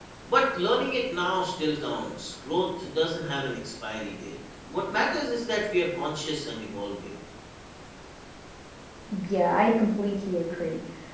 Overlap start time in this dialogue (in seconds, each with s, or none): none